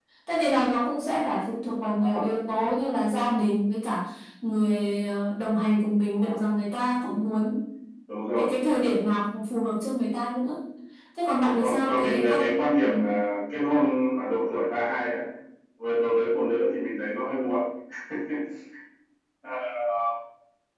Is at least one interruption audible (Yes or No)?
Yes